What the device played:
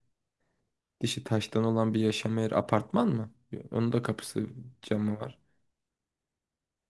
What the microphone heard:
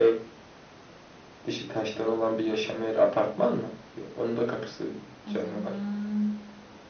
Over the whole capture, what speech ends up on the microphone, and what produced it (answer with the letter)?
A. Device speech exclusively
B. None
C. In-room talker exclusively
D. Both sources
D